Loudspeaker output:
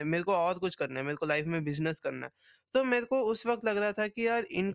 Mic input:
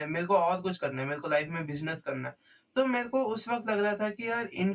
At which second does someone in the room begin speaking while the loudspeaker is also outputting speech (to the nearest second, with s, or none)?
none